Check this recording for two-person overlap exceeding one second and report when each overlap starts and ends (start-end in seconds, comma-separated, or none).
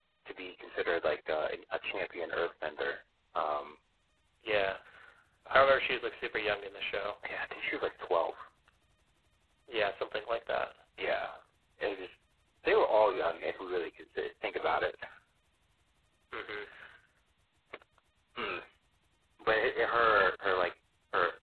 none